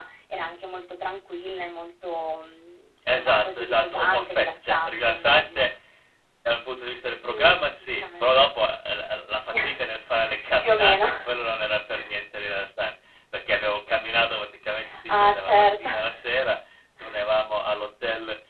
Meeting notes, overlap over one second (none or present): present